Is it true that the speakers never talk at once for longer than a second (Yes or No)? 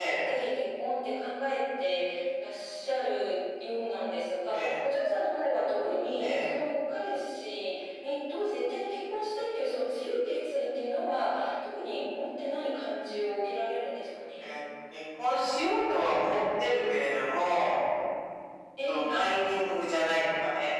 Yes